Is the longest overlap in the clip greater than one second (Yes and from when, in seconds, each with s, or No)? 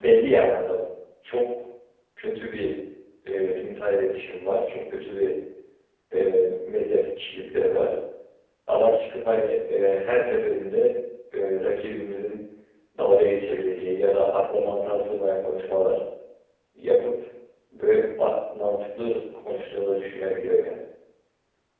No